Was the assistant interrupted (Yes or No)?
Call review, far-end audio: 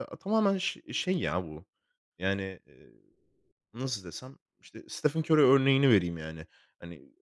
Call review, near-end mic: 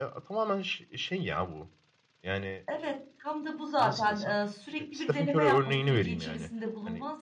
Yes